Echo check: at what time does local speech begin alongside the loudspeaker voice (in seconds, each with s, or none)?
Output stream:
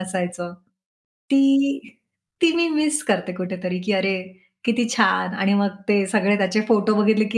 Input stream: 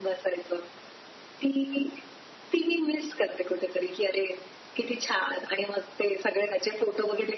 none